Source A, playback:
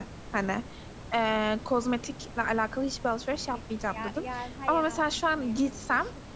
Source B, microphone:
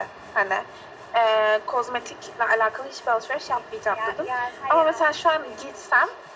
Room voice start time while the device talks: none

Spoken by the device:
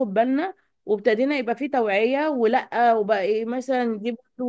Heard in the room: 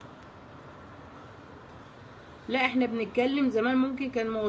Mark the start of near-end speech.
2.5 s

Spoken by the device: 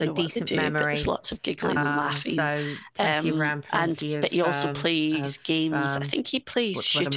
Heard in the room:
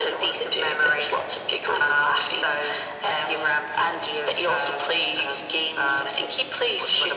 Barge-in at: none

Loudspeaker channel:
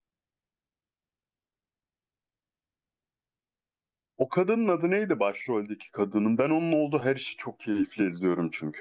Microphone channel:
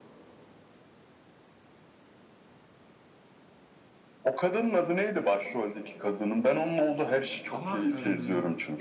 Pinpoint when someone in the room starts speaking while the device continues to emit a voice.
7.5 s

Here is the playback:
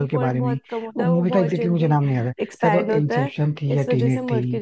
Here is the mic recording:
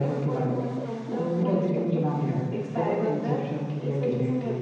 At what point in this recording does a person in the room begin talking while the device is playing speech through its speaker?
none

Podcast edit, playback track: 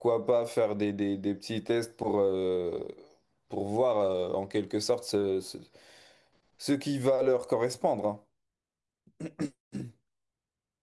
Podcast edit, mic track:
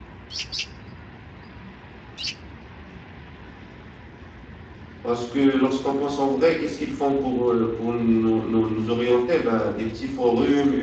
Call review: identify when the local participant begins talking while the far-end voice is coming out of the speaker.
5.0 s

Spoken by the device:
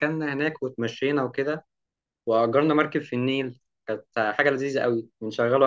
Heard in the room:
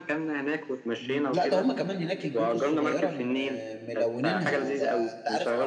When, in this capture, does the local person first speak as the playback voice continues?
1.0 s

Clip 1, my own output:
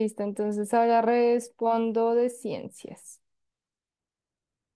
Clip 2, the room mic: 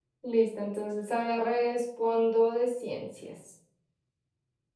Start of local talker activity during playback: none

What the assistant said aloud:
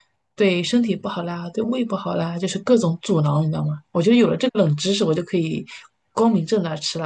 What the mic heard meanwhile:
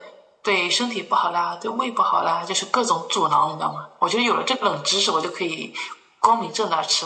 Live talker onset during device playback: none

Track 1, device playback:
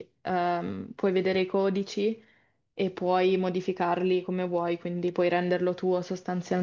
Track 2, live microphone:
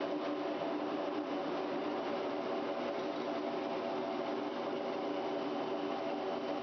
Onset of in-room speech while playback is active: none

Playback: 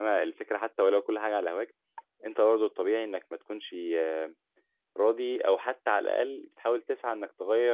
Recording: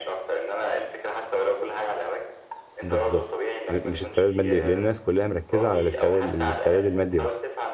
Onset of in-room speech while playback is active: 2.8 s

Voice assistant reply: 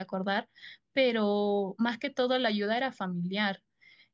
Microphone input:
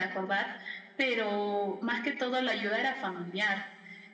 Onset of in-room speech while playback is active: none

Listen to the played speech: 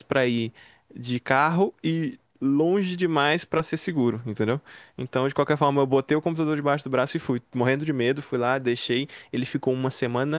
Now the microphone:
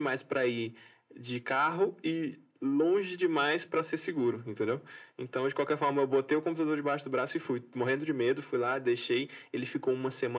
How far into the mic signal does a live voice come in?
none

